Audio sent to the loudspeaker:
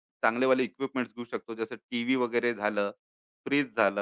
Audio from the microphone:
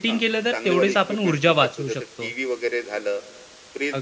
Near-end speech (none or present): present